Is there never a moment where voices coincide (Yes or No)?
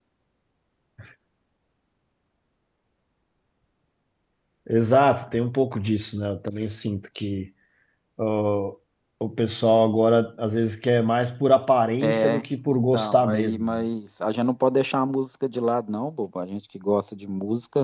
No